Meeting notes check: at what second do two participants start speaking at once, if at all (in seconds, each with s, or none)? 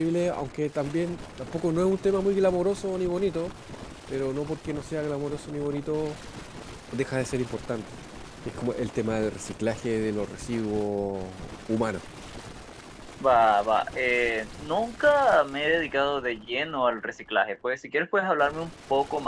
none